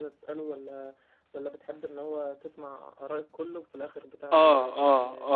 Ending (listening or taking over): taking over